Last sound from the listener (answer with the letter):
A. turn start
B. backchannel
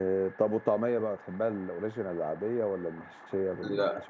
A